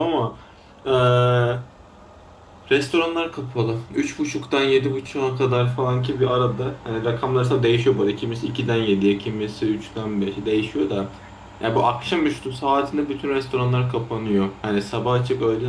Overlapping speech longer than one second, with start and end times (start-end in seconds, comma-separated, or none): none